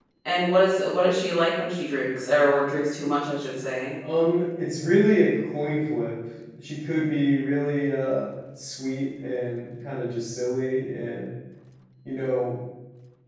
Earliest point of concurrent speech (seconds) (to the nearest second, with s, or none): none